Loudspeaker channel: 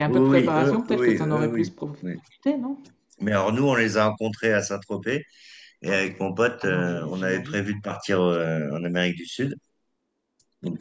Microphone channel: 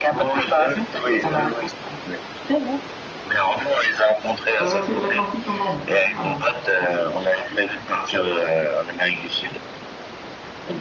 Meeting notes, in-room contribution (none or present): present